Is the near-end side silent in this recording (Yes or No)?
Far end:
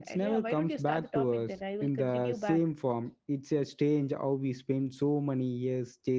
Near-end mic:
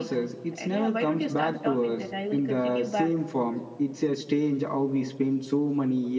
Yes